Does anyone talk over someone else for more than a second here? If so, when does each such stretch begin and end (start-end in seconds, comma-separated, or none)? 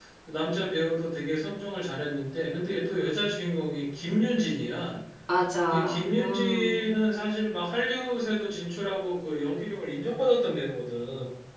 5.7-6.9